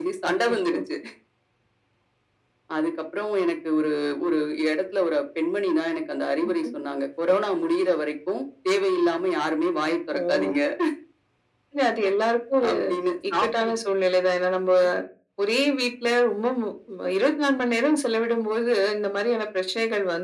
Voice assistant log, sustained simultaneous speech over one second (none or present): none